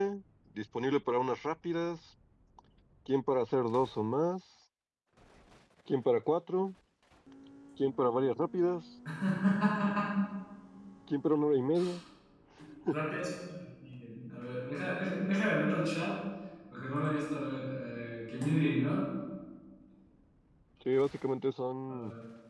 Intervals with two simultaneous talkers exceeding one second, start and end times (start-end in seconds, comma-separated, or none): none